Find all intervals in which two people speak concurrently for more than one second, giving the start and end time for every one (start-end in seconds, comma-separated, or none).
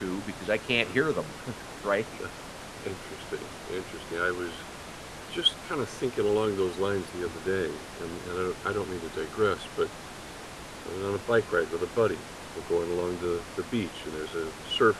none